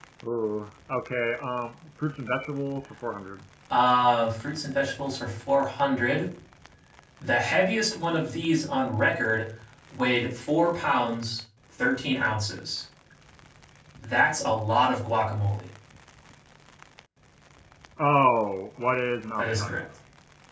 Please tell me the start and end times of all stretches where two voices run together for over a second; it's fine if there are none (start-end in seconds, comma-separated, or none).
none